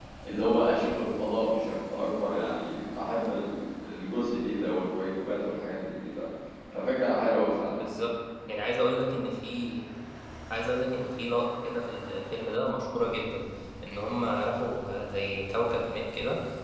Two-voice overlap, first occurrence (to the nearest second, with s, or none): none